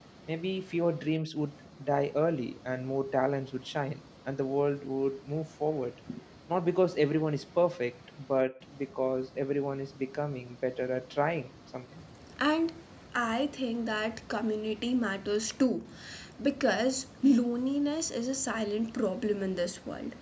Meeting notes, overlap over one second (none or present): none